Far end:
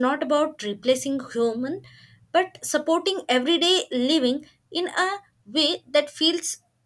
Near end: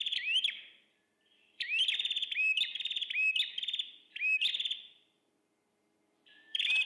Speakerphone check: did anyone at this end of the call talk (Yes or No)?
No